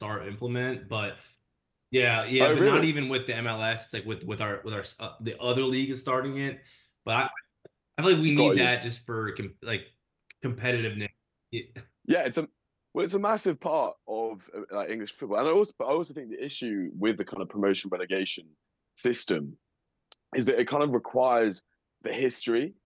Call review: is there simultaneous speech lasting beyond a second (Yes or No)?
No